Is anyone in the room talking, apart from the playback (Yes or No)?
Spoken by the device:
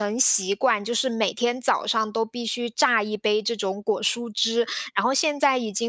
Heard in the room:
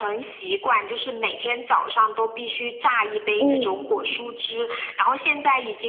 Yes